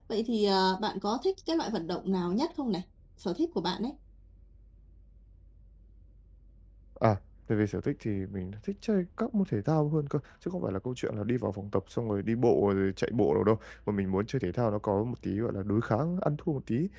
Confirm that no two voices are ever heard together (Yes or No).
Yes